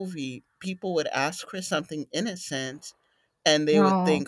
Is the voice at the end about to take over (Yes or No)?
No